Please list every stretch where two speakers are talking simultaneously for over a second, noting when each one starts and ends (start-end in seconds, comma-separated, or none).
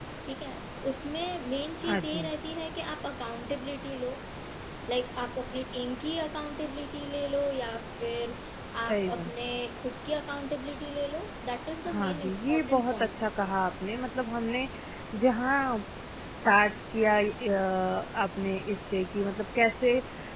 11.9-13.2